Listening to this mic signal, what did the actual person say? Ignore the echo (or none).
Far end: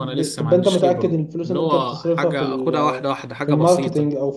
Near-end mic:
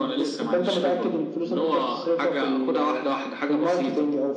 none